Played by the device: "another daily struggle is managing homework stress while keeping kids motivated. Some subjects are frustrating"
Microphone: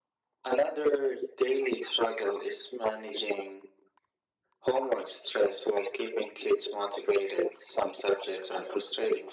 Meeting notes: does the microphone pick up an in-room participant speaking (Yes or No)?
No